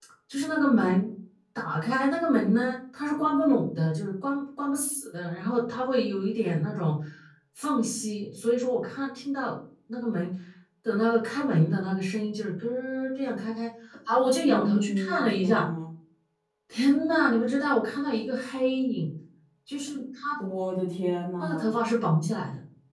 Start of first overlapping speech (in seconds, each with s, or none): 14.4 s